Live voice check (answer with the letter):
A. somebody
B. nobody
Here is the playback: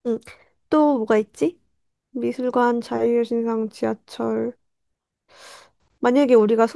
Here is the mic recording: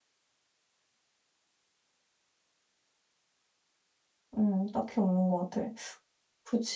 A